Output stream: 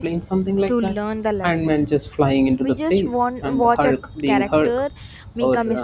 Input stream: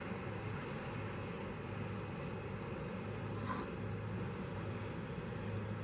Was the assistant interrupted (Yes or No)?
No